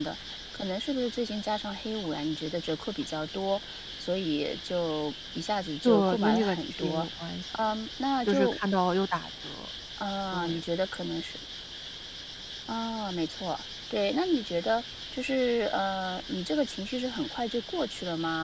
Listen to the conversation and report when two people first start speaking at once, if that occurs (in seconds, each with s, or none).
5.8 s